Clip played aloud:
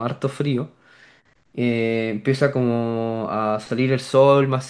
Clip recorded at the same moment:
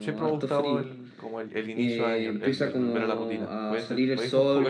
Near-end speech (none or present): present